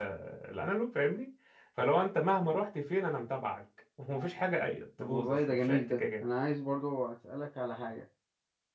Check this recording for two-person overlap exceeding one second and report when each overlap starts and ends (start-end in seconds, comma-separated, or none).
5.0-6.2